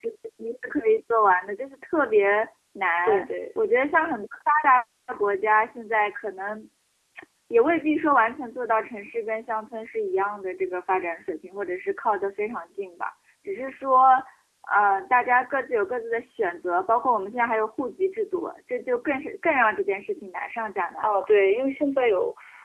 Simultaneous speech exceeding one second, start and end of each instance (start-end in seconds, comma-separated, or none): none